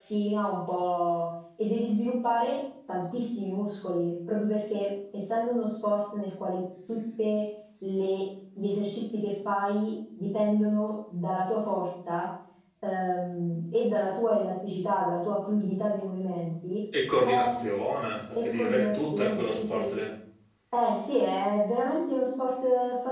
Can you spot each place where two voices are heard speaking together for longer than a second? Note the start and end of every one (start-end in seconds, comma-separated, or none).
18.4-19.9